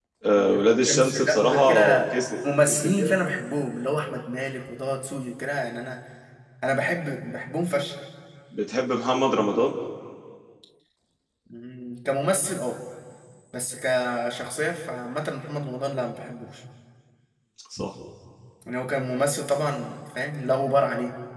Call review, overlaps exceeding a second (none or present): present